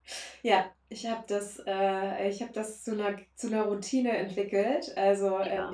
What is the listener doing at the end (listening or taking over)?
listening